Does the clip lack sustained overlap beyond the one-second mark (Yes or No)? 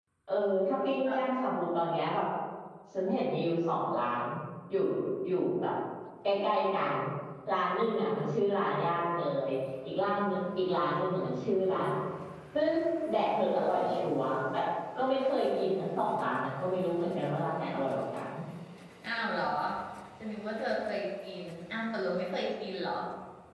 Yes